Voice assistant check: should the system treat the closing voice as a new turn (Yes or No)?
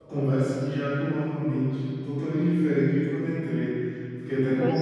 No